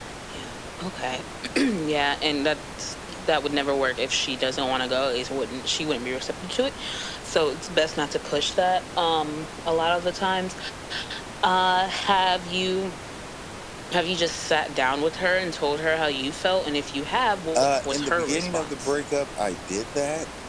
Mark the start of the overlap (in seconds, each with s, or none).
17.6 s